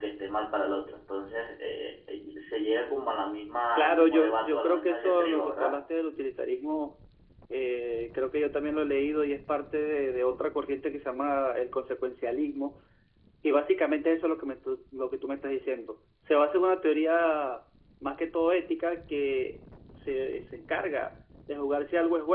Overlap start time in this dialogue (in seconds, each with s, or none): 3.8 s